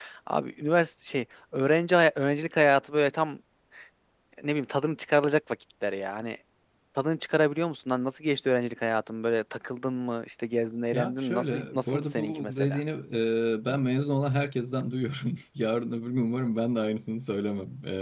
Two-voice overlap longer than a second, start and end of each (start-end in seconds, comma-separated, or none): 10.9-12.8